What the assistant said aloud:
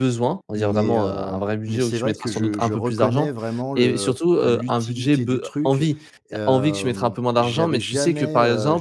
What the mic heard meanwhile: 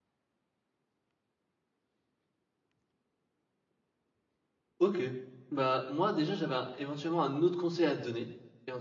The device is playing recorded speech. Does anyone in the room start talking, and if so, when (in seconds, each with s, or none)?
4.8 s